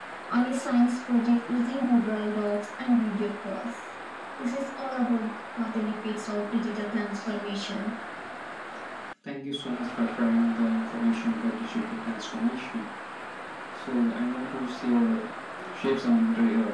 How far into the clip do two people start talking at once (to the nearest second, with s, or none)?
none